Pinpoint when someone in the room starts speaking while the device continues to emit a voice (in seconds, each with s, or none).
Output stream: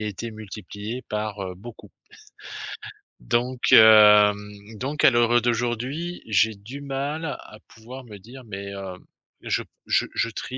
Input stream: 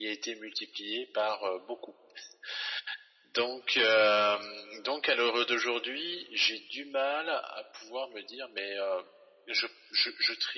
none